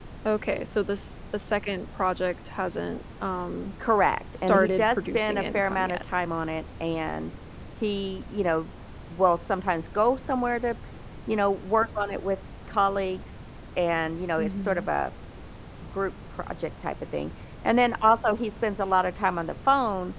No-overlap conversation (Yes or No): No